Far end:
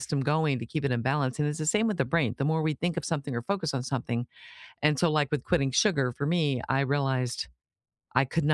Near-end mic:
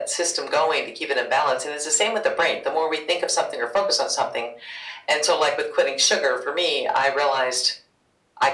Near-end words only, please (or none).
none